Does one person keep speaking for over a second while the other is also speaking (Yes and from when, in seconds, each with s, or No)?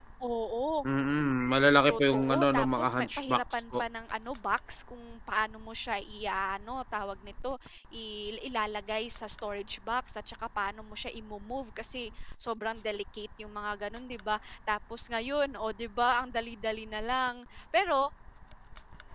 Yes, from 1.9 s